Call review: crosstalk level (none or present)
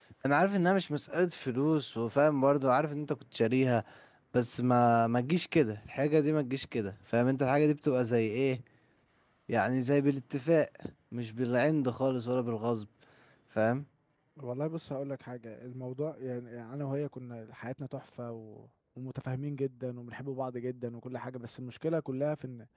none